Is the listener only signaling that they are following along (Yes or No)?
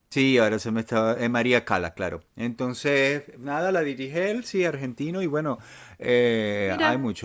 Yes